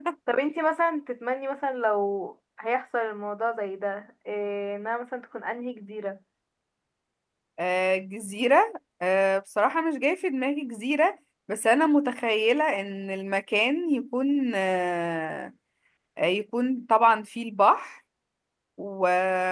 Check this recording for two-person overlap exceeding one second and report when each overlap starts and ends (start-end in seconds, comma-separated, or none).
none